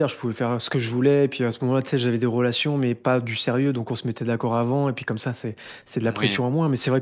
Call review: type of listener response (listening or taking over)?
listening